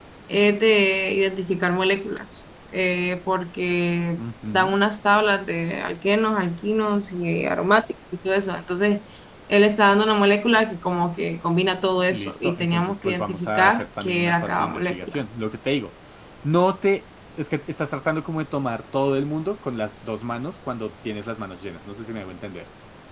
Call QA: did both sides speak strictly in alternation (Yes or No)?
No